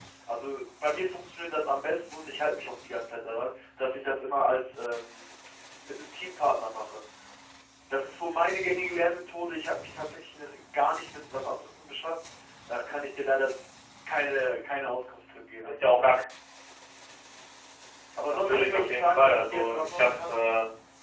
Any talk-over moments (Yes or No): Yes